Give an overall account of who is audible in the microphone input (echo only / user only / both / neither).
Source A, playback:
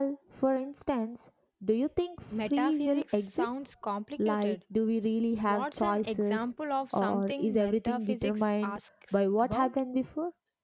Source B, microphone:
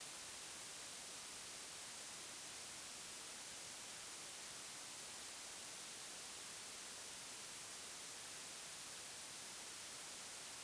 neither